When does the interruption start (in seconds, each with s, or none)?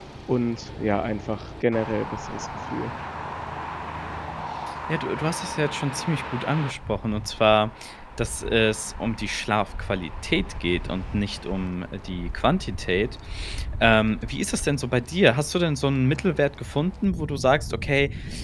none